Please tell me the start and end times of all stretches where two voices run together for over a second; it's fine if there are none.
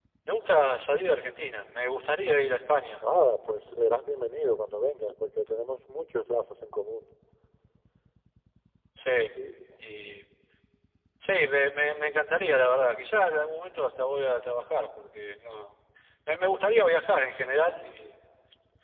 none

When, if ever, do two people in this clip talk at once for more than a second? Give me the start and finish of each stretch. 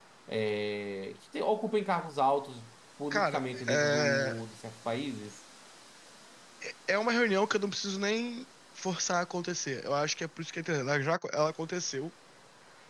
3.1-4.4

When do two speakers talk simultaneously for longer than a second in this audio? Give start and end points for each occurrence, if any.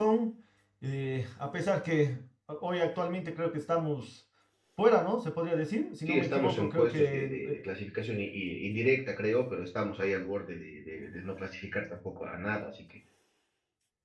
6.0-7.7

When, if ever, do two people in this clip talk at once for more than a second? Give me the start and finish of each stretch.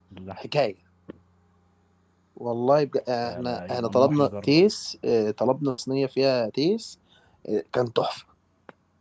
3.2-4.7

